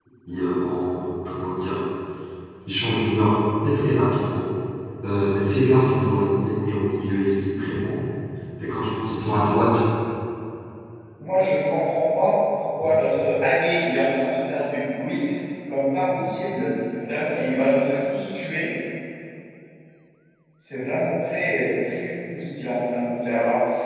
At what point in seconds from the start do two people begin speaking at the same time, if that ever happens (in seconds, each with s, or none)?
none